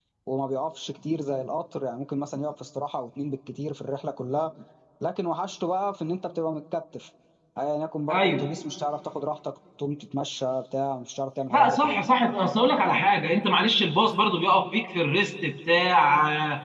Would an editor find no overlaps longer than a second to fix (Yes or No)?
Yes